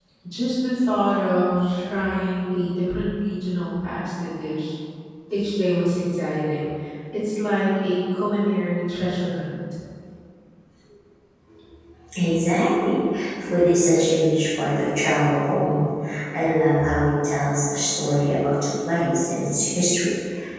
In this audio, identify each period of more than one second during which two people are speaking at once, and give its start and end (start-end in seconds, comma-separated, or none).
none